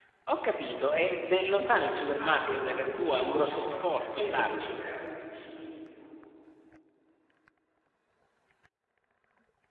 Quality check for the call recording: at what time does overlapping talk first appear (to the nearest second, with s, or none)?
2 s